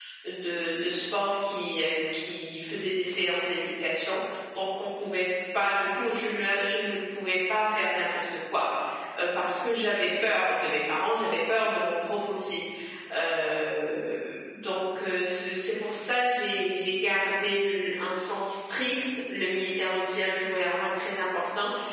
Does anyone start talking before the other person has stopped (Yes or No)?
No